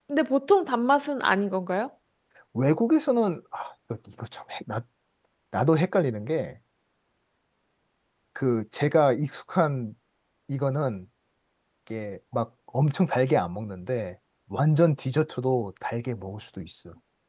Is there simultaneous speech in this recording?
No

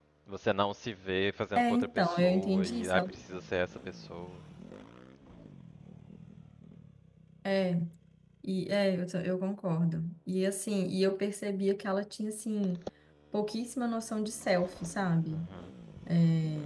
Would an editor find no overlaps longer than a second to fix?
No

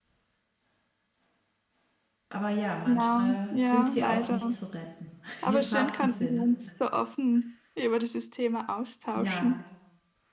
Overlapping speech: Yes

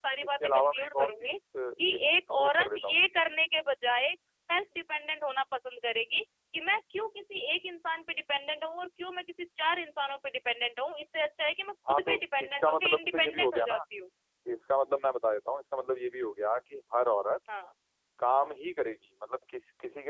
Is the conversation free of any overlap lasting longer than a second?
No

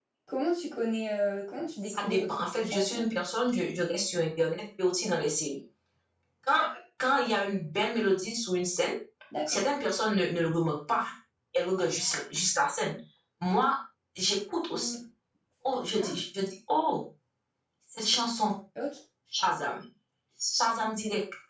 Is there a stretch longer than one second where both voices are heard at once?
Yes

